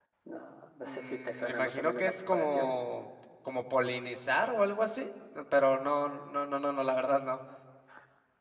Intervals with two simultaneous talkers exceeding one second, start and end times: 0.8-2.7

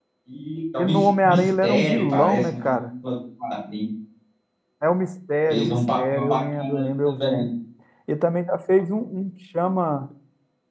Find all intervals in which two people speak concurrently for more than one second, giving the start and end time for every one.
0.8-2.9, 5.5-7.5

